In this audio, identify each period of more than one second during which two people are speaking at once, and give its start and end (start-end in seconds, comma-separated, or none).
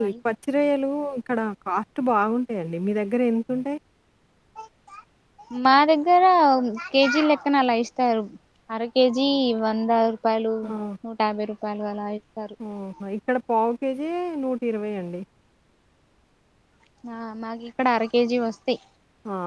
none